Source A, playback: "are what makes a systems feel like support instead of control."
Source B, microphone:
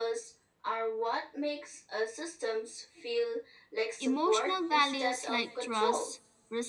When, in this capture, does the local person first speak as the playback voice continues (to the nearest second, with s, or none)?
4 s